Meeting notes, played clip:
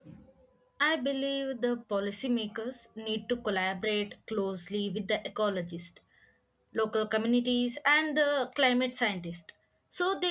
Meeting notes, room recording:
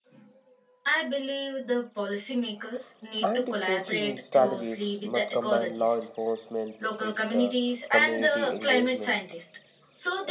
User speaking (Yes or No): Yes